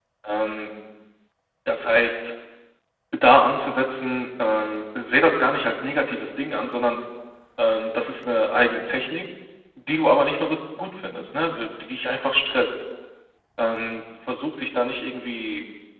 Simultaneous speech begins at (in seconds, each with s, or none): none